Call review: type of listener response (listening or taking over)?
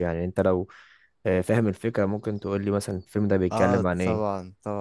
taking over